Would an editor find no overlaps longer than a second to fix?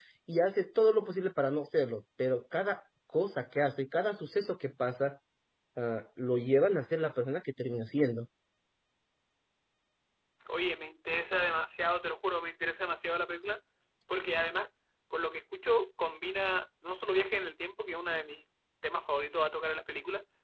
Yes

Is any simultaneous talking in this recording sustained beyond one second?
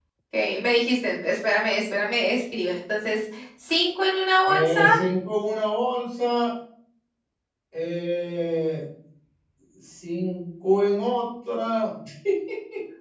No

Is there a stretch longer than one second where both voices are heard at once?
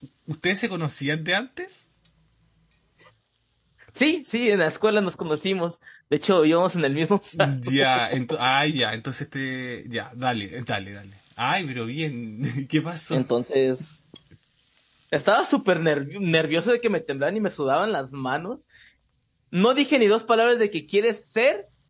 No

